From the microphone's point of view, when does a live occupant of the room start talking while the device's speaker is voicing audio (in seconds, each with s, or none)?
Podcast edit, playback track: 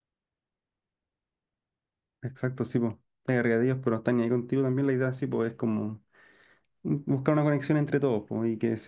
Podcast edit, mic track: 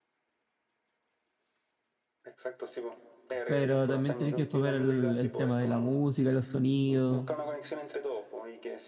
3.4 s